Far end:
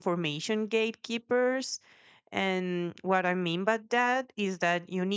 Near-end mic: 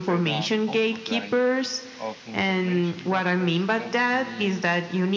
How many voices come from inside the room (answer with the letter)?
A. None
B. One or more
B